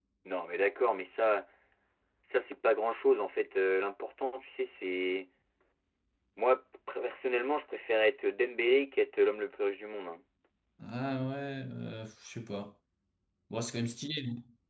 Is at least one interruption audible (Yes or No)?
No